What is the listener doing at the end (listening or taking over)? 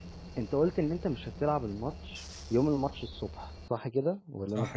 taking over